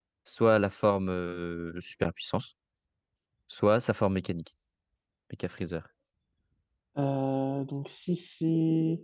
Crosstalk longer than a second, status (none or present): none